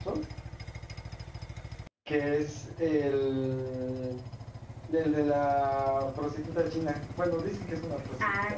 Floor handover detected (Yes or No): Yes